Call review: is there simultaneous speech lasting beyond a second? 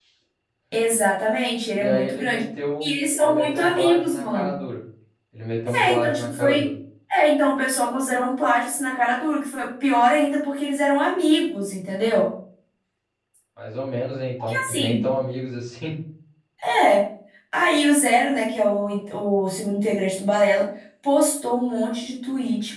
Yes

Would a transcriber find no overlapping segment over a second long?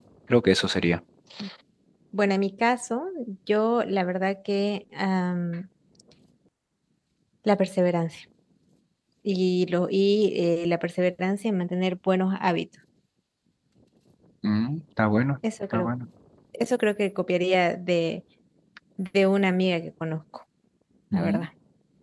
Yes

